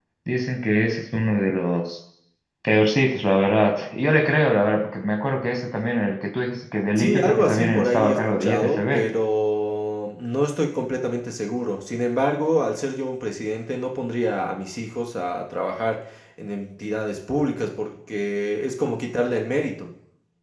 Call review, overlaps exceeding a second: present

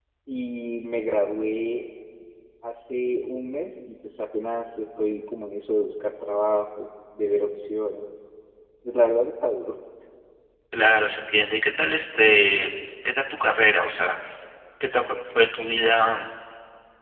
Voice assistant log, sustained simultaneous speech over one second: none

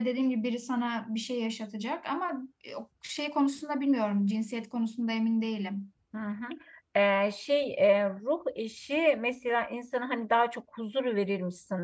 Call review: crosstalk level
none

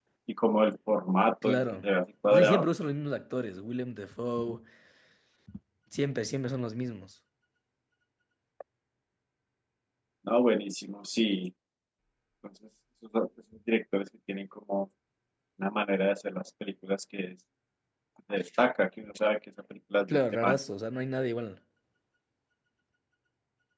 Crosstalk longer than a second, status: none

